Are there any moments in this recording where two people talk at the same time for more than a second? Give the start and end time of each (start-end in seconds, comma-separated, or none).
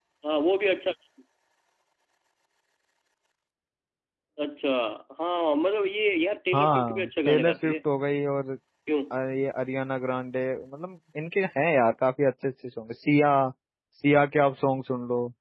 6.5-7.7